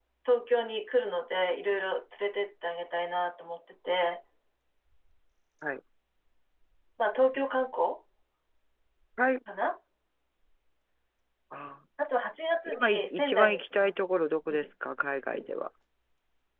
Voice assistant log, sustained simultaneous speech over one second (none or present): present